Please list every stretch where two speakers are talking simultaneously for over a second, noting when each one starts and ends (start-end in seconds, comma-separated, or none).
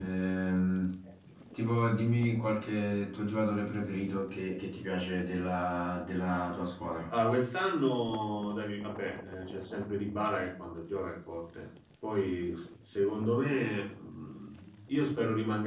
none